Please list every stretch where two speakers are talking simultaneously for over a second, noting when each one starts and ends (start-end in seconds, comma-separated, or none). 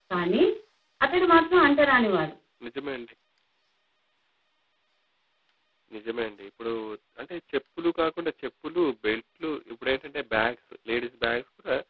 none